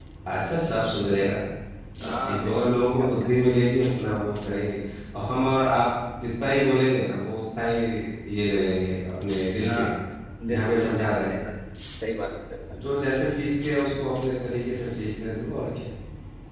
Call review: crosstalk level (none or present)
present